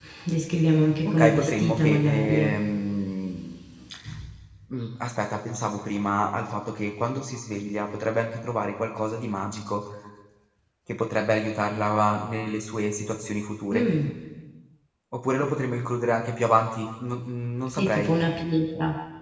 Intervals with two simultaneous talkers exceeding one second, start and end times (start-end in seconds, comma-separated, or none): 1.1-2.4